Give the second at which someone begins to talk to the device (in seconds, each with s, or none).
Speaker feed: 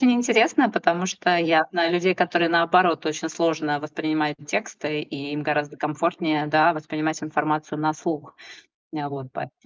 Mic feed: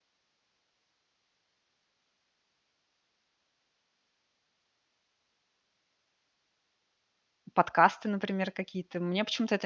7.5 s